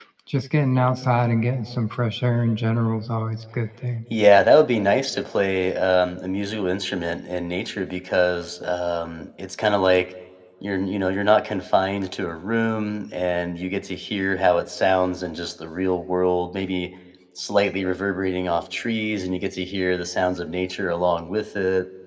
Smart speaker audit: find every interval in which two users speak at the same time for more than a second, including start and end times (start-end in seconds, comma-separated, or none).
none